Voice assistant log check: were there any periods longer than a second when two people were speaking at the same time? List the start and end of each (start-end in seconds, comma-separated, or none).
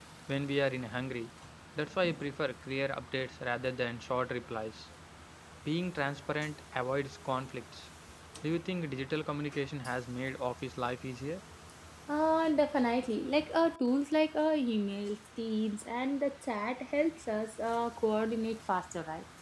none